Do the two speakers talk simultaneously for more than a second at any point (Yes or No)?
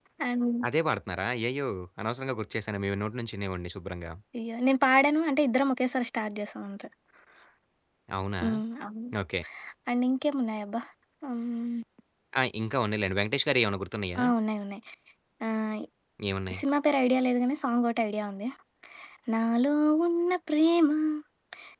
No